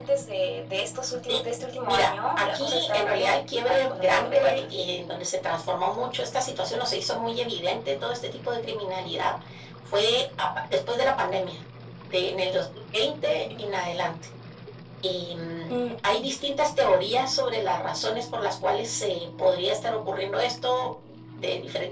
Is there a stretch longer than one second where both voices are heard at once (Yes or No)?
Yes